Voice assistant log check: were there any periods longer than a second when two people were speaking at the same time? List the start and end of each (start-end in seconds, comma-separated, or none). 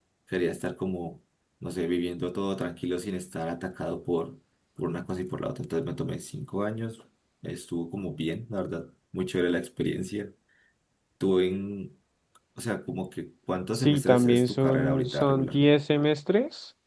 13.7-15.7